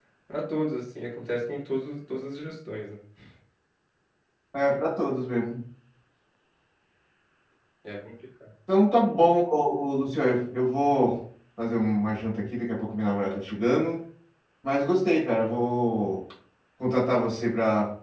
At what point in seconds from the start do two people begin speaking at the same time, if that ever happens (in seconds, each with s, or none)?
none